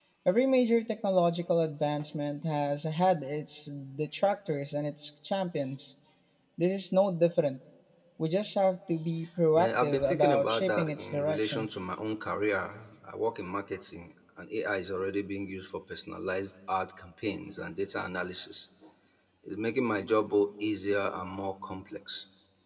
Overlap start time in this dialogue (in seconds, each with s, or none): 9.6 s